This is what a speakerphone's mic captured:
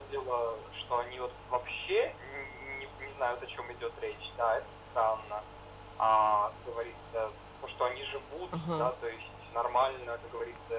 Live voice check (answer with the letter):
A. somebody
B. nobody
A